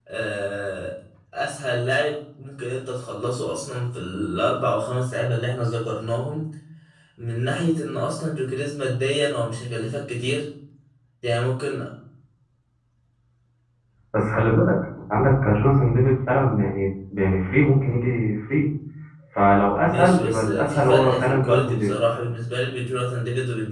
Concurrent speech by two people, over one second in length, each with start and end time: 19.9-21.9

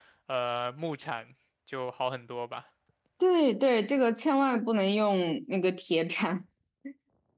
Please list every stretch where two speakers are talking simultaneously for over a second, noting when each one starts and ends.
none

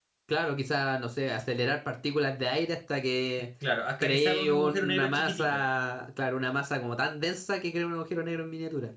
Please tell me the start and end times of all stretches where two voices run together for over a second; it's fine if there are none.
4.0-5.6

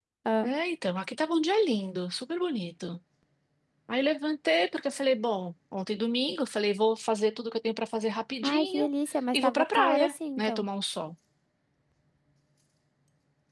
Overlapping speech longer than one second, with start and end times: 9.3-10.7

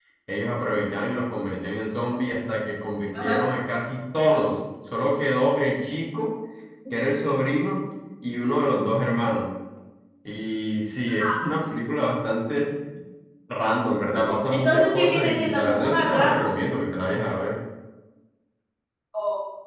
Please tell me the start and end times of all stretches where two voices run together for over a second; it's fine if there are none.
14.5-16.4

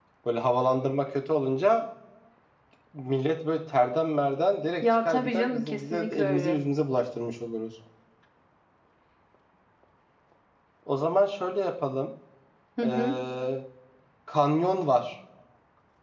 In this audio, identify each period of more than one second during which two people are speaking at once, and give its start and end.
4.8-6.6

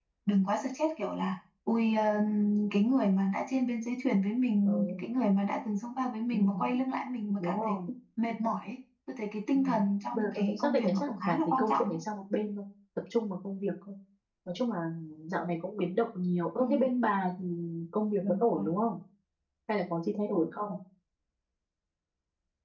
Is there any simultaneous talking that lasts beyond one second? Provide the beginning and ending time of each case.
10.1-12.0

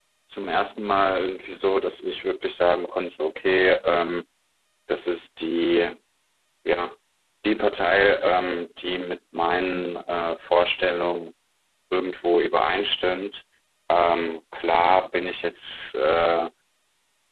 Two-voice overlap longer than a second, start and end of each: none

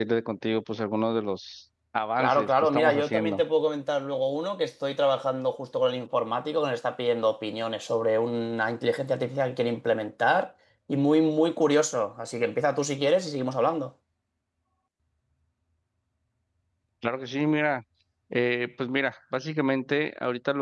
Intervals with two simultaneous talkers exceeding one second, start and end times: 2.2-3.4

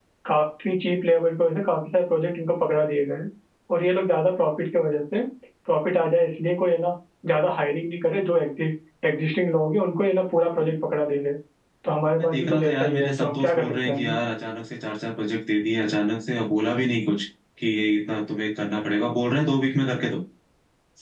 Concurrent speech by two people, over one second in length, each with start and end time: 12.0-14.1

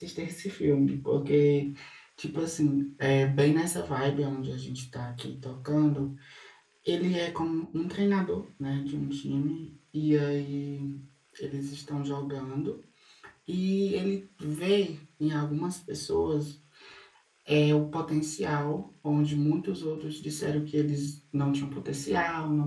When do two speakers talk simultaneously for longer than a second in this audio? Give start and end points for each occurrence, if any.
none

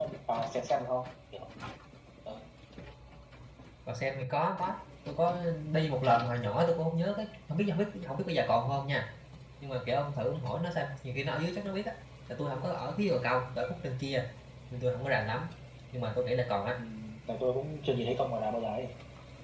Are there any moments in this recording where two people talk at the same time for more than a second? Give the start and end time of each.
none

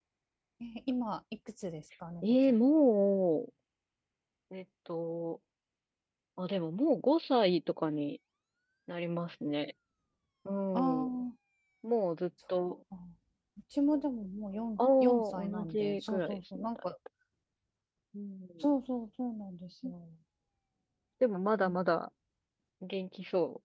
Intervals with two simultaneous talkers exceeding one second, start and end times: 14.8-16.9

